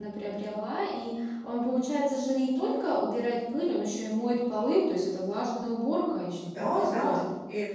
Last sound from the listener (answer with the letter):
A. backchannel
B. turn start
B